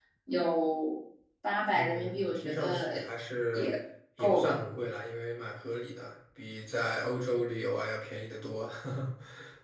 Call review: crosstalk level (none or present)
present